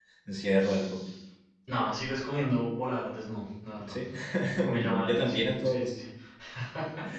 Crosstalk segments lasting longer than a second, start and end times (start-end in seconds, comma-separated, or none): 4.6-5.9